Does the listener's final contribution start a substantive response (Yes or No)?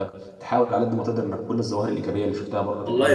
Yes